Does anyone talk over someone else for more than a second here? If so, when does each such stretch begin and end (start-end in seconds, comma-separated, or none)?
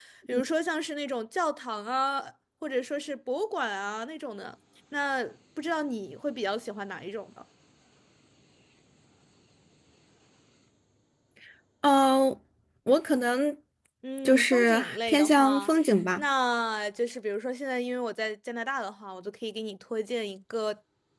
14.2-15.7